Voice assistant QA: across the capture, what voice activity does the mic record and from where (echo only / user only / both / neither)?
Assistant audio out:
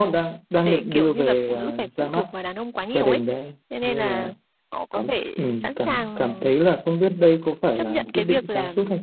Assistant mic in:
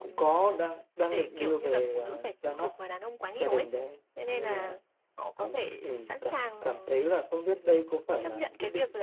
echo only